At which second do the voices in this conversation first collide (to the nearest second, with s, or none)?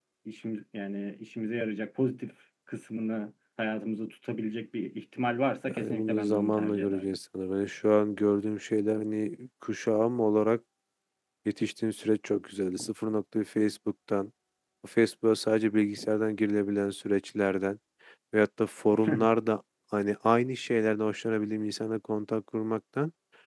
6 s